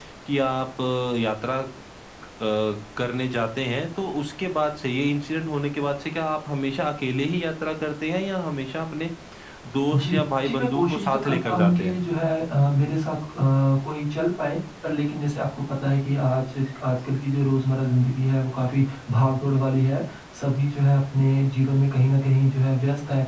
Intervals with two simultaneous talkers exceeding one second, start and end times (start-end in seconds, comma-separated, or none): 9.9-12.0